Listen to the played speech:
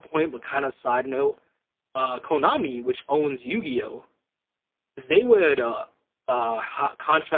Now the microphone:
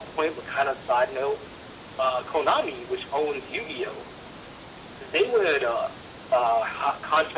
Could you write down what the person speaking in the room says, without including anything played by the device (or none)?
none